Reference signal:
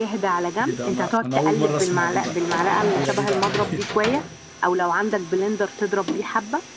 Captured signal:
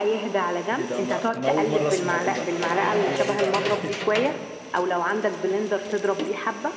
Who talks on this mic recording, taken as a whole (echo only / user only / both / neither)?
echo only